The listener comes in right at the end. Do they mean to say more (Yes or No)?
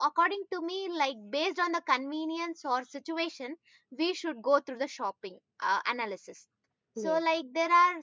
No